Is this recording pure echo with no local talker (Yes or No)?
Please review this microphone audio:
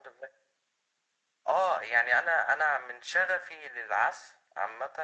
Yes